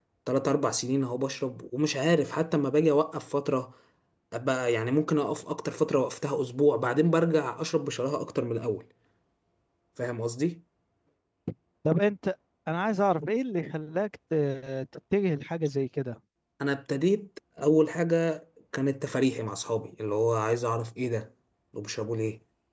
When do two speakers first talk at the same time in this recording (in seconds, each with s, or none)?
none